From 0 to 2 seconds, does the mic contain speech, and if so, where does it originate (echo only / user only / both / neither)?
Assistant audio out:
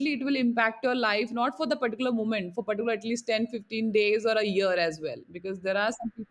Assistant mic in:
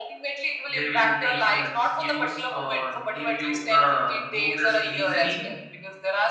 both